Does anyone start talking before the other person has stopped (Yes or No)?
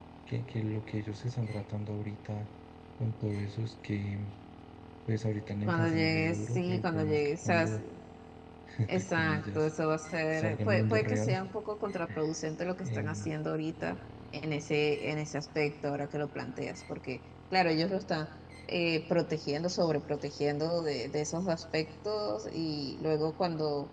Yes